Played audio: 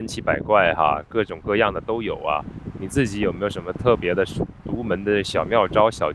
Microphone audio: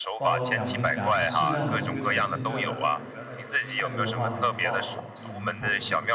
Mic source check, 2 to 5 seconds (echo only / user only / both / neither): both